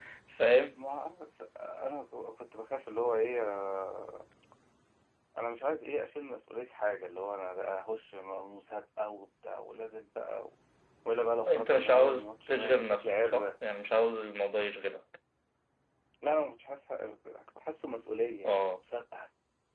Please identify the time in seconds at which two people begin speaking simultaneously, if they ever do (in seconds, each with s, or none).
11.5 s